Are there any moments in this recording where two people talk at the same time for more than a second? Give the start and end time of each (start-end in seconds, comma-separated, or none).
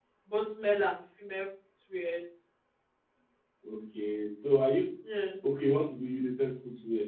none